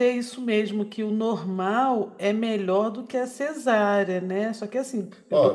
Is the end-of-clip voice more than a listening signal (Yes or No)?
Yes